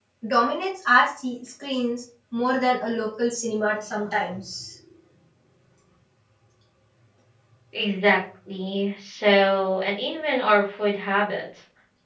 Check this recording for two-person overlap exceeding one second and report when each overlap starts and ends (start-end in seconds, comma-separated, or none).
none